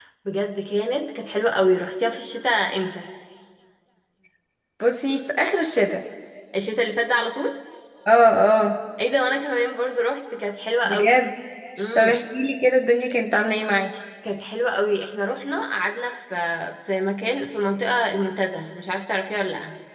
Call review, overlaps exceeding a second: none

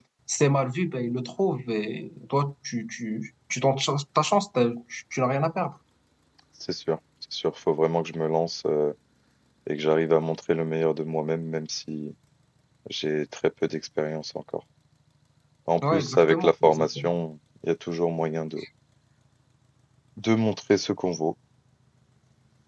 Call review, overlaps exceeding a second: present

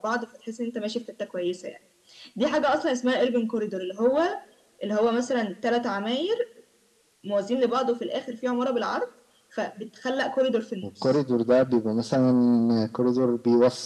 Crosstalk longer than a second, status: none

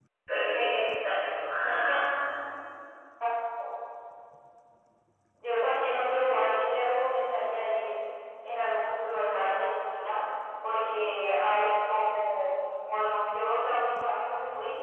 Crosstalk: none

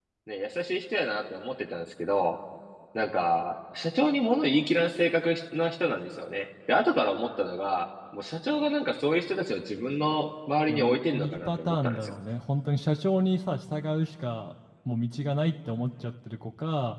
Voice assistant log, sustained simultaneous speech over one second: present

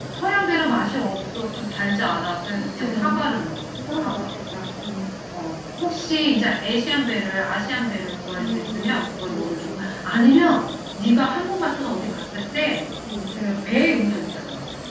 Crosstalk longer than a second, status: present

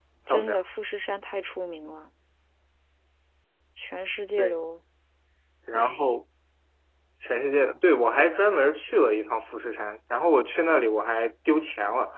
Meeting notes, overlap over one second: none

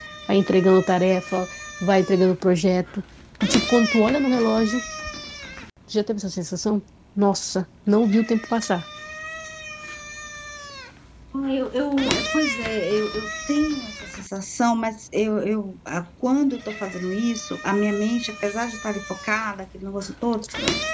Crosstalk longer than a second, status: none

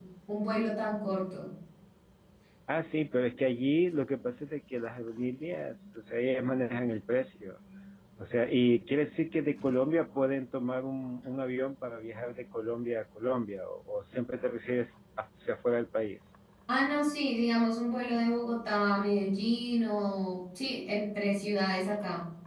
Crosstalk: none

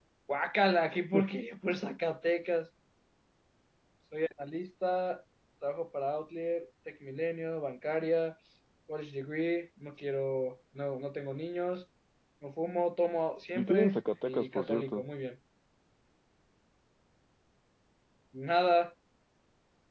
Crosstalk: present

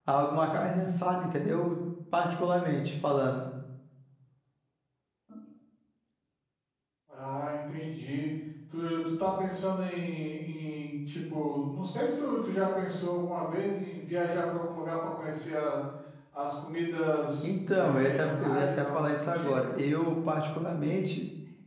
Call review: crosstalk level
present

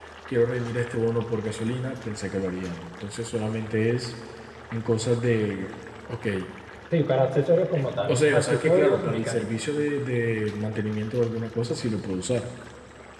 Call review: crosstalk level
present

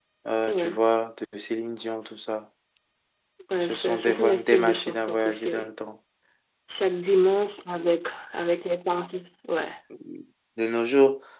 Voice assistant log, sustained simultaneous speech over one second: present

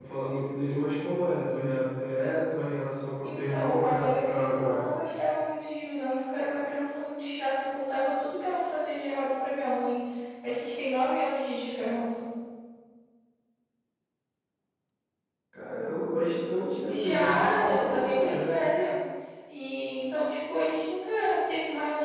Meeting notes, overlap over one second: present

